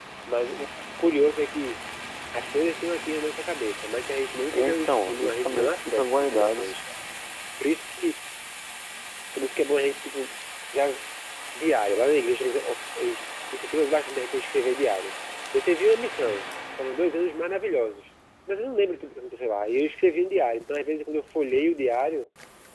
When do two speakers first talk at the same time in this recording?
5 s

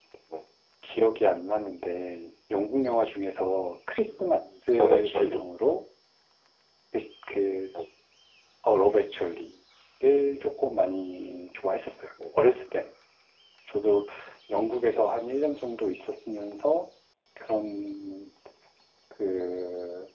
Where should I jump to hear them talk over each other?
4 s

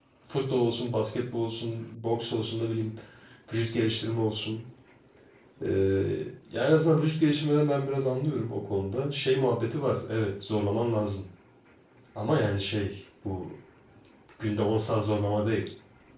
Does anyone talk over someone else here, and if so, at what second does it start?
none

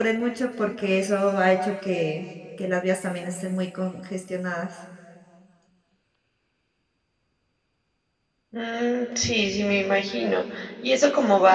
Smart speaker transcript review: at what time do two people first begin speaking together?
none

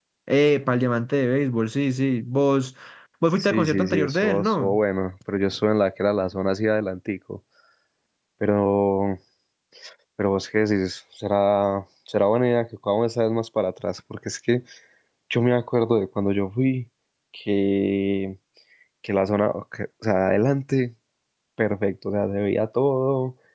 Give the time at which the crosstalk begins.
3 s

